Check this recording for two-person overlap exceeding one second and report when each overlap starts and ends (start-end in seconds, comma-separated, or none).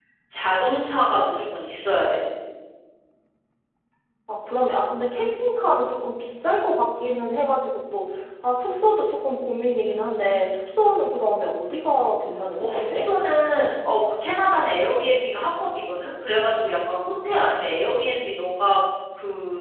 none